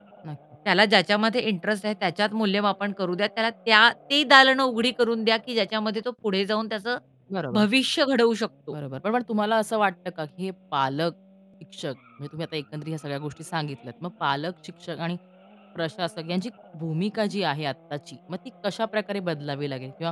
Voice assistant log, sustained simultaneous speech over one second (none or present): none